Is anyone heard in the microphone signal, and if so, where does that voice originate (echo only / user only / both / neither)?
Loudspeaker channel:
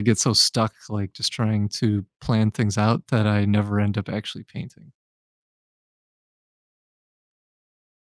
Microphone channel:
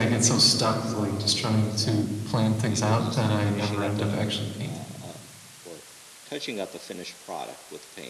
both